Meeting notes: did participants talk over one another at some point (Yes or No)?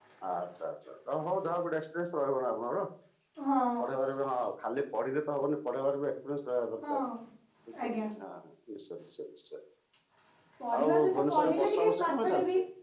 Yes